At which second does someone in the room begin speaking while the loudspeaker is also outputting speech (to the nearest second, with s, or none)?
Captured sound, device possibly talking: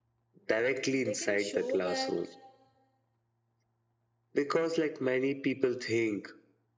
1 s